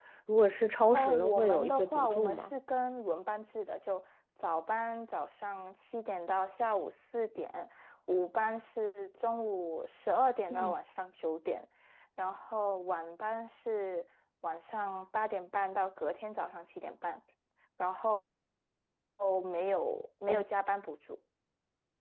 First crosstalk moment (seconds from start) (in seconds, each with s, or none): 0.9 s